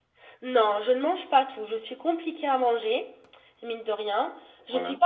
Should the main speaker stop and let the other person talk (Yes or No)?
No